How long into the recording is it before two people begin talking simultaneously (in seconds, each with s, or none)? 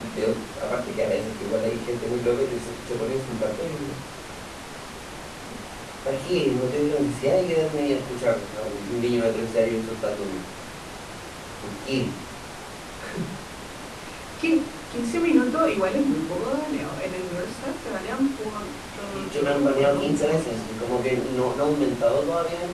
18.9 s